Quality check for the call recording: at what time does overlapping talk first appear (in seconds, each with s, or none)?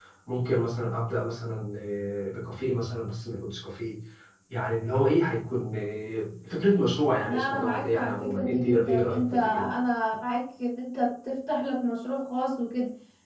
7.2 s